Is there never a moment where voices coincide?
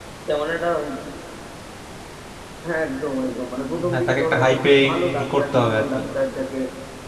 No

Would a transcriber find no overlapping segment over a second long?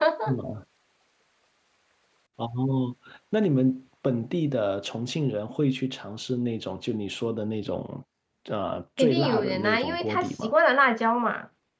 No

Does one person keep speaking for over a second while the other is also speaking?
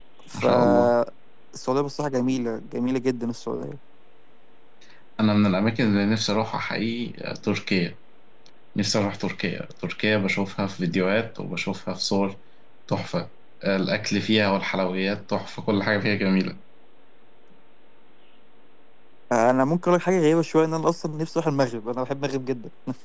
No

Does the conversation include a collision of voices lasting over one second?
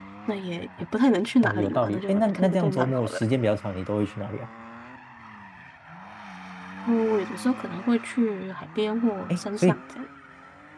Yes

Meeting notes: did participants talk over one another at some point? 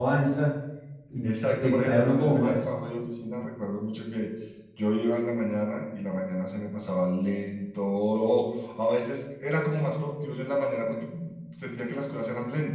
Yes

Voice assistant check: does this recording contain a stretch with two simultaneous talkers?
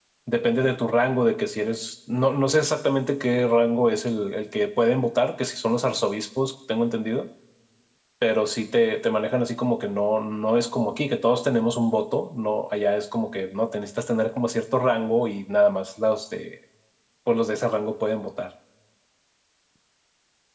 No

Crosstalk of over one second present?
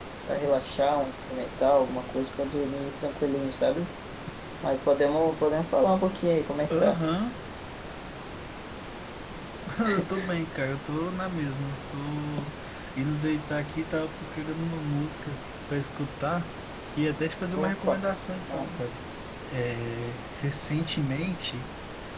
No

